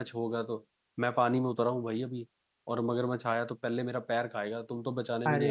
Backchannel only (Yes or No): No